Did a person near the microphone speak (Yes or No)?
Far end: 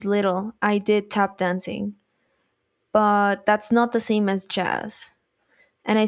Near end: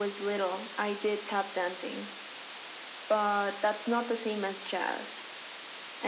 No